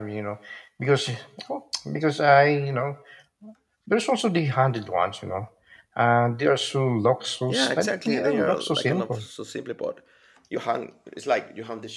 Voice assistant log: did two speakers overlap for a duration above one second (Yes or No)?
Yes